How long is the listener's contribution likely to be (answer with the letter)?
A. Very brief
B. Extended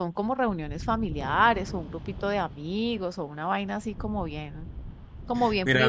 B